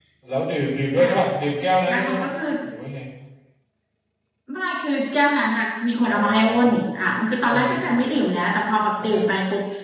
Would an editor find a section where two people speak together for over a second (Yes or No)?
Yes